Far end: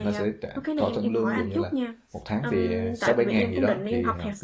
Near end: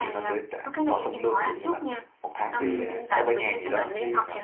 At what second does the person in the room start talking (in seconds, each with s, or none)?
2.6 s